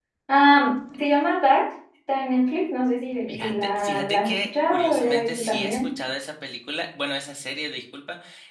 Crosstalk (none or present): present